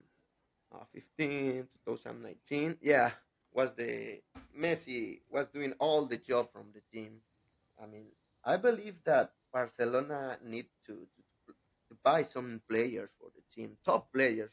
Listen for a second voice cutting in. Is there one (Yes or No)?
No